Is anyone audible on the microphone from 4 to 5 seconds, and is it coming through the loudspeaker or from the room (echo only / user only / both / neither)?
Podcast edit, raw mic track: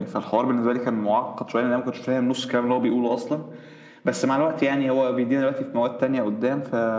echo only